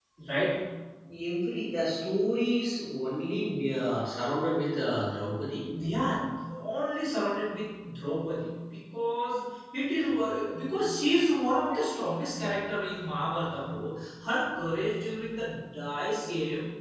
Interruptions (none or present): none